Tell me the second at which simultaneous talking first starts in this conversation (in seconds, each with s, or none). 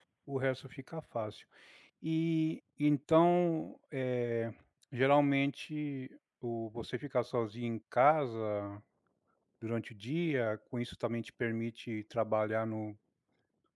none